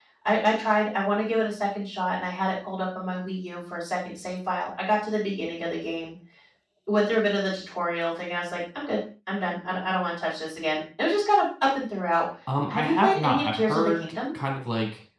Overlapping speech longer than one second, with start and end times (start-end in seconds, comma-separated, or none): 12.7-14.1